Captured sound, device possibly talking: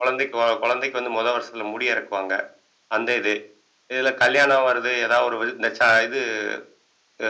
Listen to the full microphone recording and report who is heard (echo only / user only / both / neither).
echo only